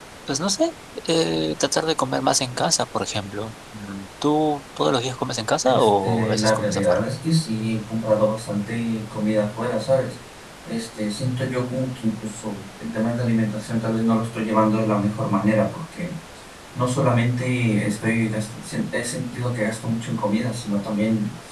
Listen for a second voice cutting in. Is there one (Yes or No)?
Yes